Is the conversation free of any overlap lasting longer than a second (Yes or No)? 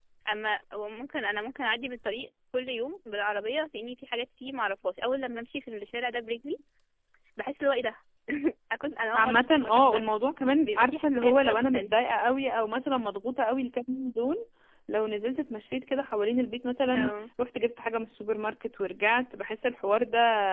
No